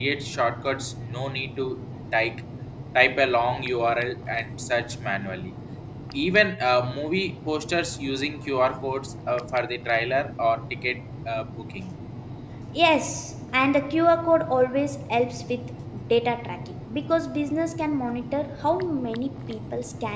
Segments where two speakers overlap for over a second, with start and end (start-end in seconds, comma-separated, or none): none